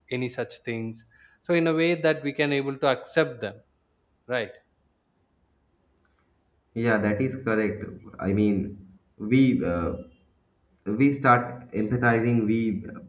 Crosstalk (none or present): none